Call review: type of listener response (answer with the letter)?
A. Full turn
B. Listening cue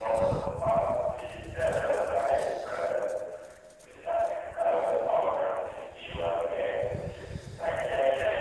B